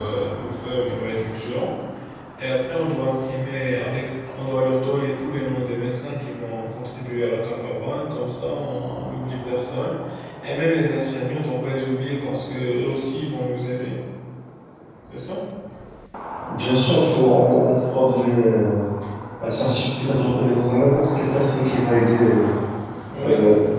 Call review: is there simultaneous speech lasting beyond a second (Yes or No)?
No